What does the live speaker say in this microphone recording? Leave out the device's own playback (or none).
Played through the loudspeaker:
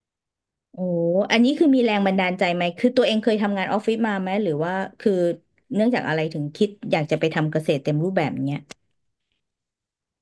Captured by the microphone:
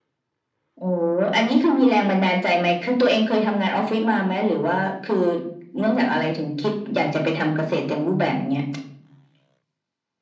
none